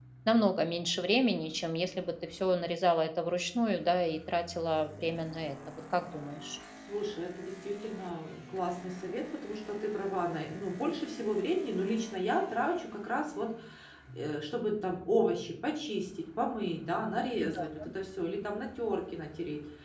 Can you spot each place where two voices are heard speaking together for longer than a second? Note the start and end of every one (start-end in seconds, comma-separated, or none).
none